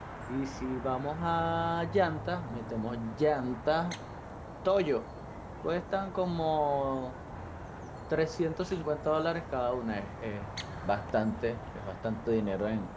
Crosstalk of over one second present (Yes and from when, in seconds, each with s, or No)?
No